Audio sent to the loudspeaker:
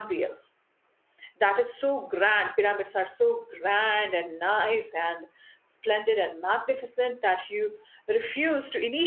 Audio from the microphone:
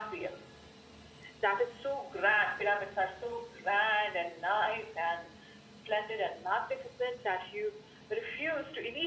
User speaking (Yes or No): No